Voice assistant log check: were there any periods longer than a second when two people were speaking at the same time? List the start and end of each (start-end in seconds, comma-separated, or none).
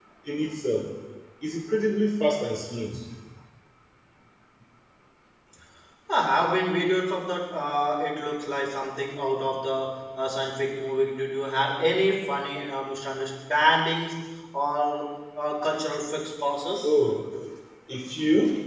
none